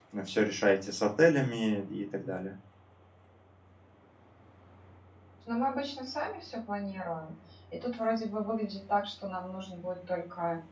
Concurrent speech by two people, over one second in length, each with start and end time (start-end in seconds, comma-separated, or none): none